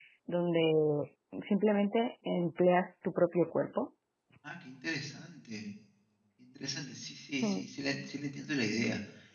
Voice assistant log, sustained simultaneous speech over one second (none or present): none